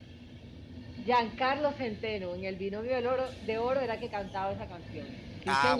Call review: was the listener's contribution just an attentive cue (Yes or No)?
No